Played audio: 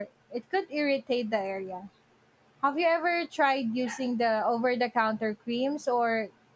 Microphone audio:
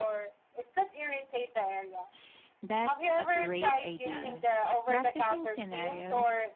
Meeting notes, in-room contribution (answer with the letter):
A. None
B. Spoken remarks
B